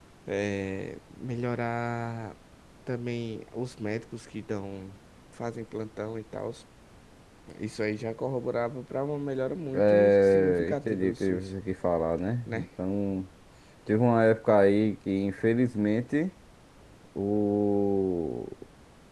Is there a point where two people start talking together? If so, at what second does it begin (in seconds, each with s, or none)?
9.7 s